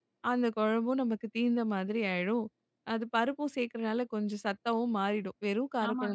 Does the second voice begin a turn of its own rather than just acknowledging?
Yes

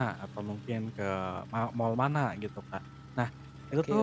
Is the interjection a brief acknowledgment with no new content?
Yes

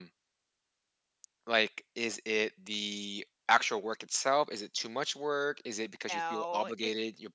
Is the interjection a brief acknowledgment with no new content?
Yes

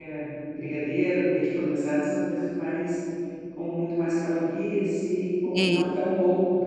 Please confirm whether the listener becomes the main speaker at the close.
No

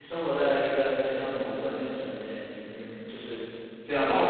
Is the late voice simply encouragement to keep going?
No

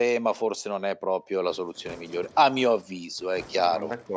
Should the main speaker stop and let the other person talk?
Yes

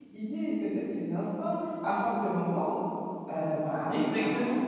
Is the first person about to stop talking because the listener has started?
Yes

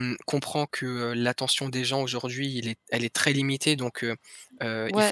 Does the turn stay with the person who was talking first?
Yes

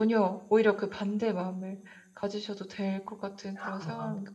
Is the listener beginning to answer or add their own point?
Yes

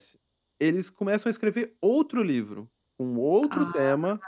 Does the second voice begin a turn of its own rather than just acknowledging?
No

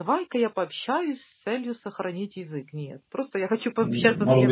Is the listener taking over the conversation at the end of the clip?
Yes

